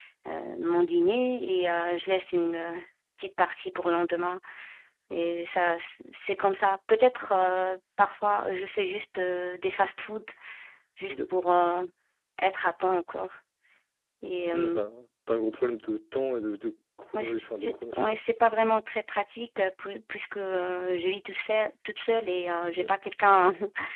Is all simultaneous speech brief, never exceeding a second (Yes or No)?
No